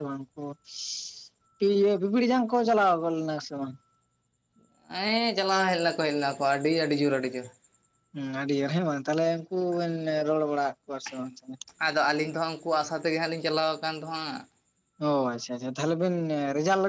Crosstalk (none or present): none